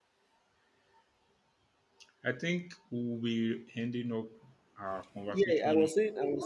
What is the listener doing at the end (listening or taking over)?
taking over